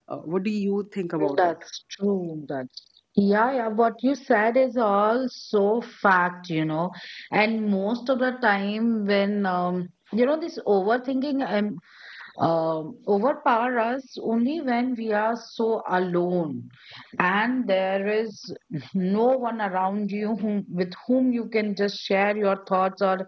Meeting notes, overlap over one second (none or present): none